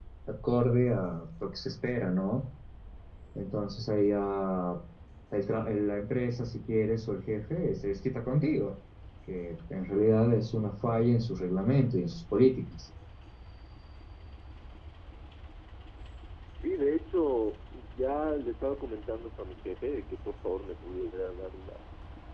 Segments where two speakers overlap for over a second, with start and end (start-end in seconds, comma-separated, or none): none